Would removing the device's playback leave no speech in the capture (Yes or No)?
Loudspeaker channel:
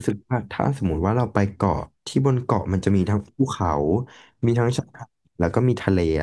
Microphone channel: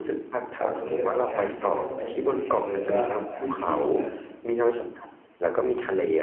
No